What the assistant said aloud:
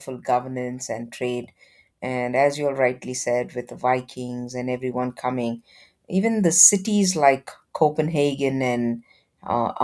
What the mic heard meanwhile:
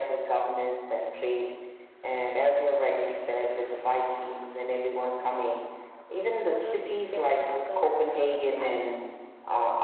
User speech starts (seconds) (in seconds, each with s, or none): 6.4 s